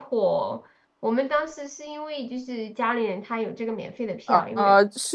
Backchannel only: No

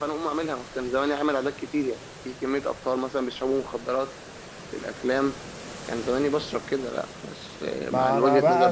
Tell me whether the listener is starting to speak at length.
Yes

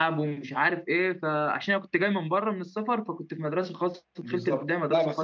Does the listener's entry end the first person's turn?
Yes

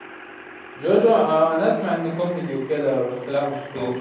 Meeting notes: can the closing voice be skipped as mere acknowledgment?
No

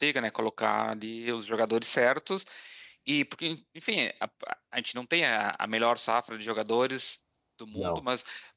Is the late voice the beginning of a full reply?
No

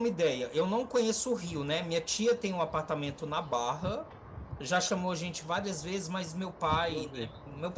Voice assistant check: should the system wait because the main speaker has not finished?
Yes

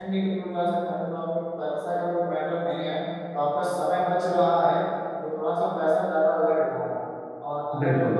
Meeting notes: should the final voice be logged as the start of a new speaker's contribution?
No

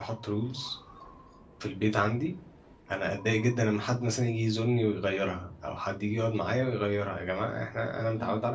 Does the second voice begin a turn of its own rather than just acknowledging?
No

